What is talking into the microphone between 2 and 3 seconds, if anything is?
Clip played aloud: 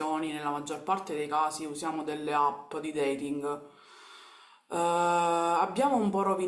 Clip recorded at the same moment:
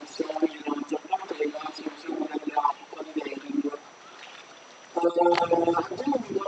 echo only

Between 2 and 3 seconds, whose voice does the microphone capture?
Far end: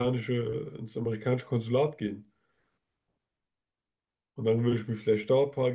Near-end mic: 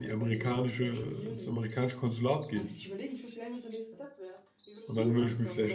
both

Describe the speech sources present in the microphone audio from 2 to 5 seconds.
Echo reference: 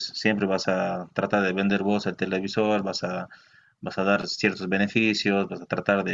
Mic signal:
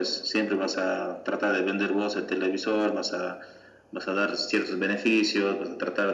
echo only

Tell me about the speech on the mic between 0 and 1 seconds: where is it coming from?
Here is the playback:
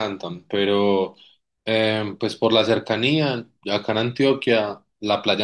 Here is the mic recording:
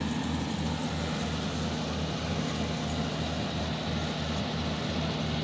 neither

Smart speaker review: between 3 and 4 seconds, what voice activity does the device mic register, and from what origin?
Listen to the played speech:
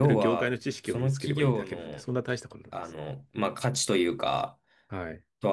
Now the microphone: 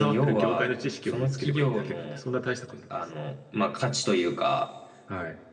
echo only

